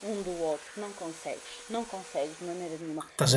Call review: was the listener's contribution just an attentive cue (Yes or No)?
No